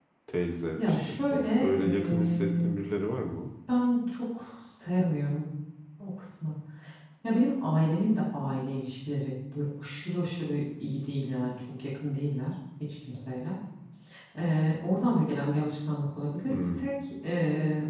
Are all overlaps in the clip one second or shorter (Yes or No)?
No